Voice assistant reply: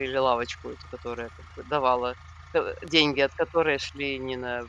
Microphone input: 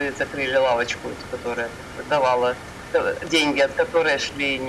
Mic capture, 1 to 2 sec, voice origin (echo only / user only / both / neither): echo only